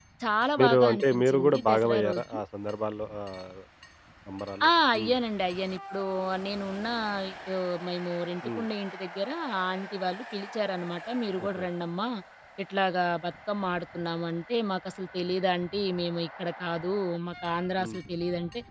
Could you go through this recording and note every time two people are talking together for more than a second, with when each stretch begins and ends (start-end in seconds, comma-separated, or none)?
0.6-2.3